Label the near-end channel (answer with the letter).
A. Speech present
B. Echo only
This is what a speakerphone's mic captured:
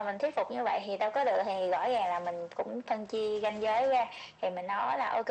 B